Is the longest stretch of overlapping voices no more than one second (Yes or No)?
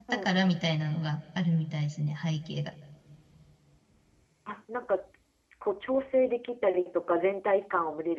Yes